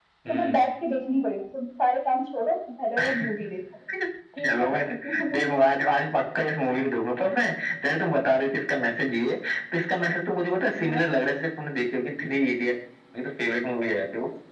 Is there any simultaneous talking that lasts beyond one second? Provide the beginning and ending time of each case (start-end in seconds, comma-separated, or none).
none